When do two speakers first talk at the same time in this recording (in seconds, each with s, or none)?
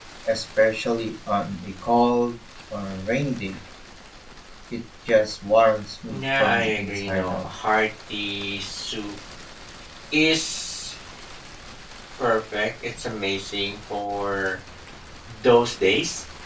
6.0 s